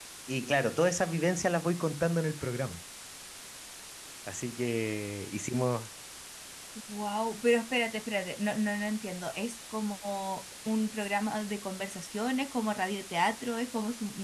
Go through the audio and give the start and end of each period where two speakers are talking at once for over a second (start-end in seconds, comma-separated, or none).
none